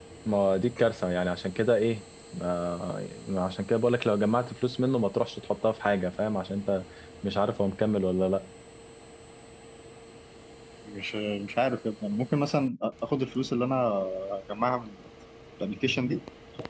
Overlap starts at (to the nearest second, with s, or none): none